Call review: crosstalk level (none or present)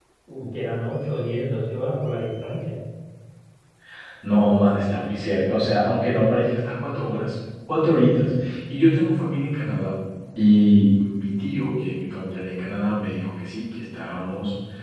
none